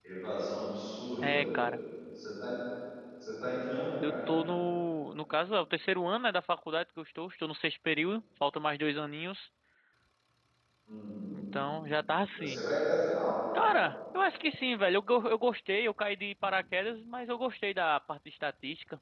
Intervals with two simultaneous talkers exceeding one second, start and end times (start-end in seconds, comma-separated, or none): none